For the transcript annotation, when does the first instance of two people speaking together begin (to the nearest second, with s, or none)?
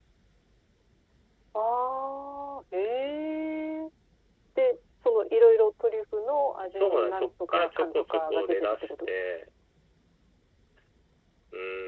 7 s